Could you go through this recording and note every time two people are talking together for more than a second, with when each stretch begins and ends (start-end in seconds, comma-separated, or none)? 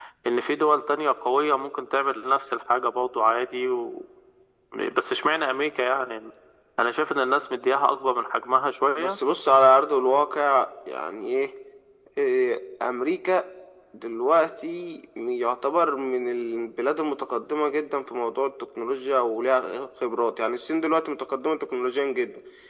none